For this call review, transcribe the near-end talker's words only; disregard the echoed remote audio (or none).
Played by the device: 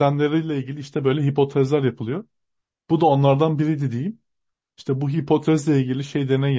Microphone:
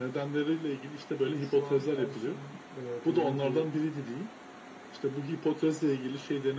Çünkü şu an her şeyin e, belli bir